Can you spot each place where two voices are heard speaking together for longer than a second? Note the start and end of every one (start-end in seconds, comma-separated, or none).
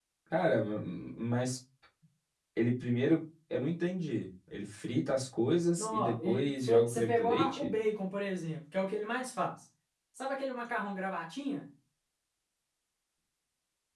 5.8-7.7